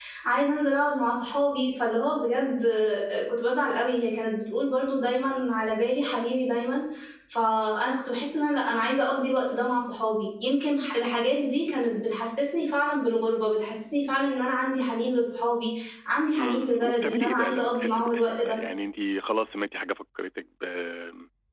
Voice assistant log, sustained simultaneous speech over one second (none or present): present